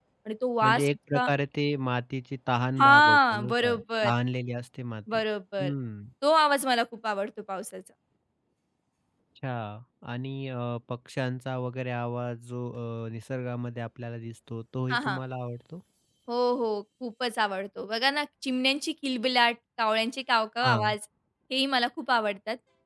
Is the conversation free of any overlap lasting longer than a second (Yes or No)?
No